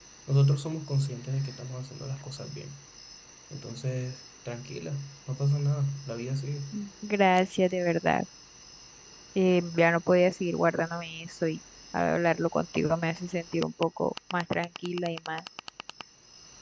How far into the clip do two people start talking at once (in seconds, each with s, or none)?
none